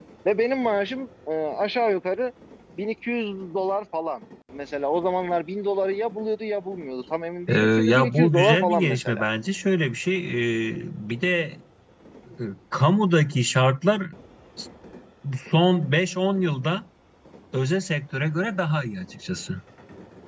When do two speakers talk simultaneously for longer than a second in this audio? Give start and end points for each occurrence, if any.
7.5-9.2

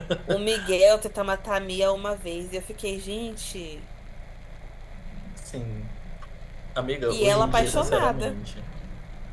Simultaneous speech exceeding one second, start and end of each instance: 7.1-8.3

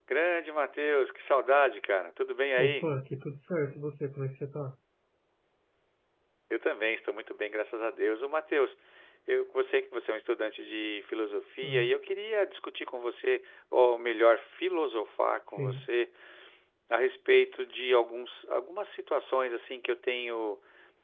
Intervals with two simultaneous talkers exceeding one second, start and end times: none

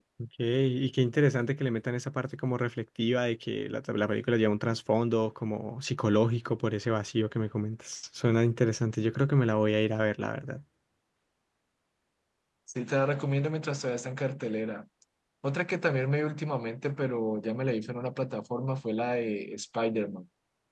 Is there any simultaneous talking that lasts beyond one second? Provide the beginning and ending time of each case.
none

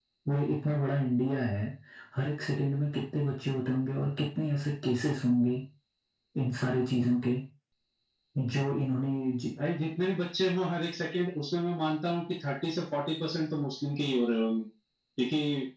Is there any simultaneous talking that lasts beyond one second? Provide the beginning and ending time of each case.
none

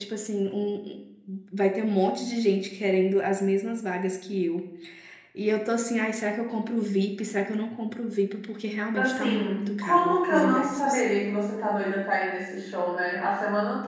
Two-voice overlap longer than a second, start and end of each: 8.9-11.0

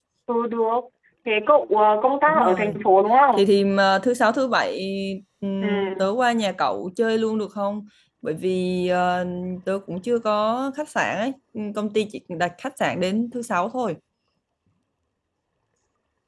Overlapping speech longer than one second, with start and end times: none

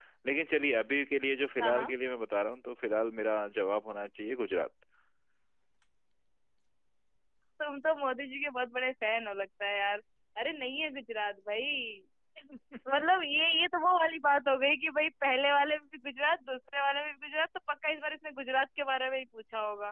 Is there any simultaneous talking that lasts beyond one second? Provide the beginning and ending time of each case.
none

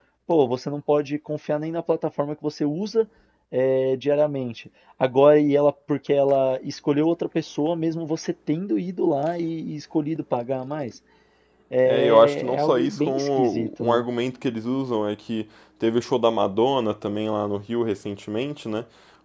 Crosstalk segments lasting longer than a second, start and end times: 11.8-14.0

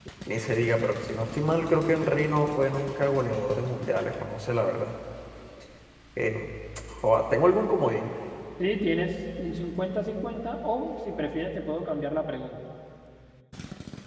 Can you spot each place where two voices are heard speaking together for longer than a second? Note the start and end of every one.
none

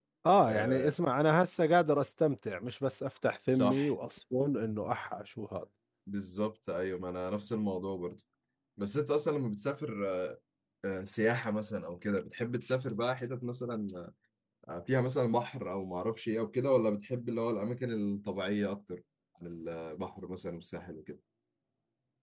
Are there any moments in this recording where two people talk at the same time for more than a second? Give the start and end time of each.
none

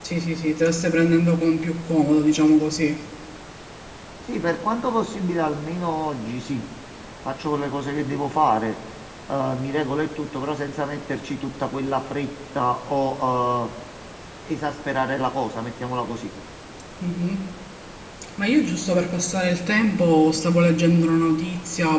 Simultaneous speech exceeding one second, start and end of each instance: none

